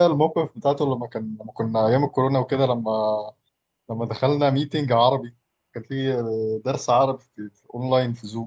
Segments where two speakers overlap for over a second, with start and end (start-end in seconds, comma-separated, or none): none